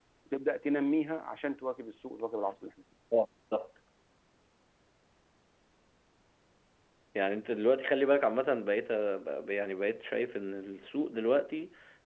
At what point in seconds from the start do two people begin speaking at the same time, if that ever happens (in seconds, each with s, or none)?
none